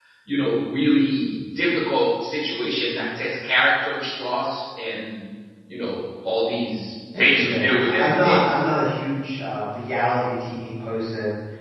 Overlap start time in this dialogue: 7 s

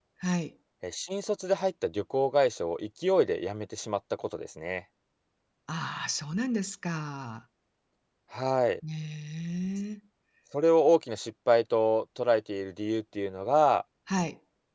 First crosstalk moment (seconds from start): none

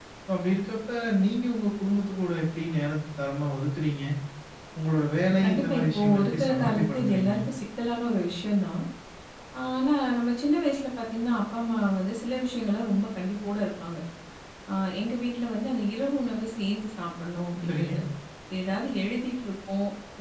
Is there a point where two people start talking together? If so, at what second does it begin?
5 s

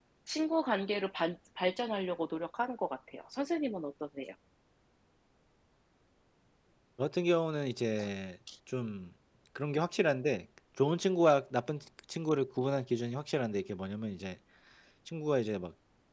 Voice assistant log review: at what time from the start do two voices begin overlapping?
none

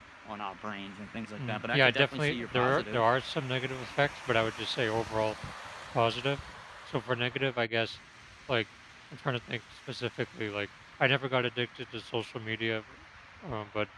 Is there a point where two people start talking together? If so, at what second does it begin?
1 s

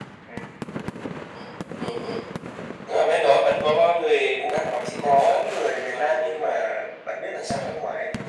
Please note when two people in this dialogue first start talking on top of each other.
4 s

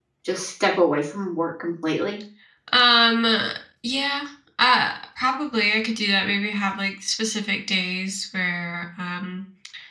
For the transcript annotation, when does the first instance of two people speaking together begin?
none

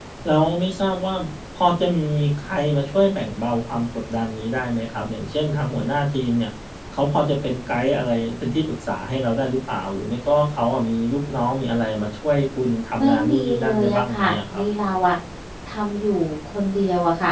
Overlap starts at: 13 s

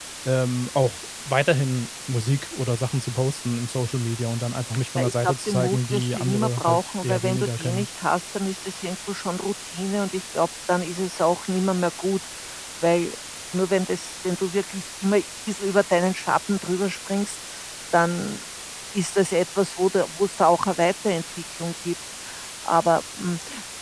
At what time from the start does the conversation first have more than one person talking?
5 s

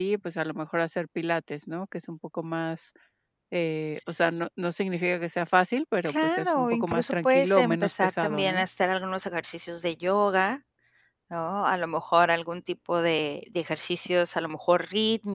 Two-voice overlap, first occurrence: 6 s

